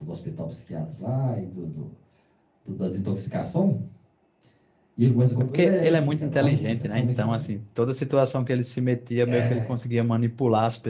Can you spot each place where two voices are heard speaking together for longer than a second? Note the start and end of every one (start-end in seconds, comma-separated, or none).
5.5-7.5